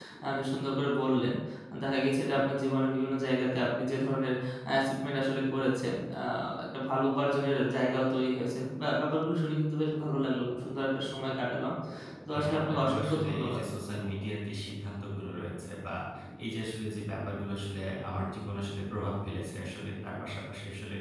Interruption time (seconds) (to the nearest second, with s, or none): 12 s